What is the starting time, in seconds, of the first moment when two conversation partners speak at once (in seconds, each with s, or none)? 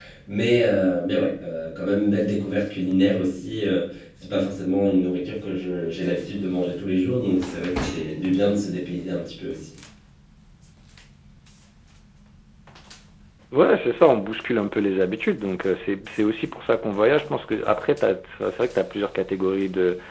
none